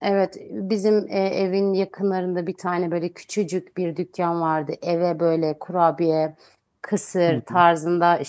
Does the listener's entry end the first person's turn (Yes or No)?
No